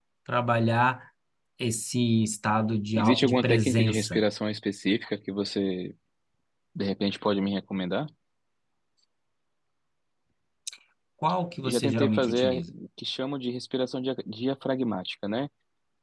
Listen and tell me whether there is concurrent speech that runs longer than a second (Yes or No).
Yes